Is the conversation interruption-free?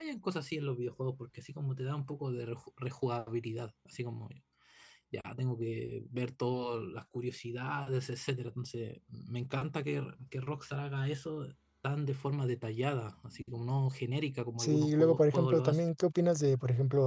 No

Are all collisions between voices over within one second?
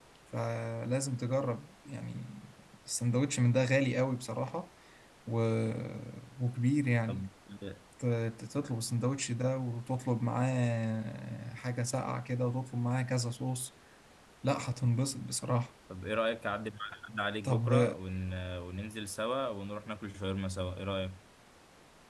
Yes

